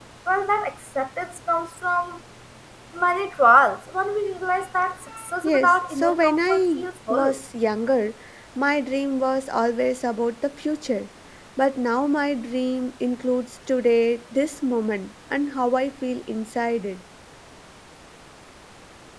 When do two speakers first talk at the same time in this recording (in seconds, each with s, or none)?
5.4 s